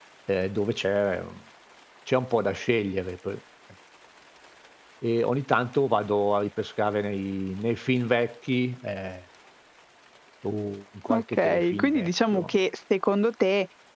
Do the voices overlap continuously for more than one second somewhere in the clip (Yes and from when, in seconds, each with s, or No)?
Yes, from 11.1 s